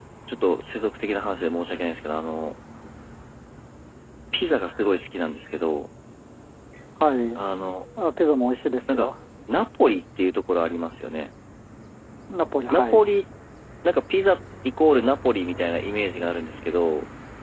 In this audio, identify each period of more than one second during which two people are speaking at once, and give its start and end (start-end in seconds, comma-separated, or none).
none